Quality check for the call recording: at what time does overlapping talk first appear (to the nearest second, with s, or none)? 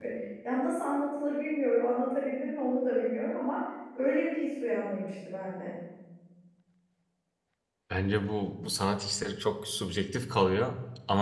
none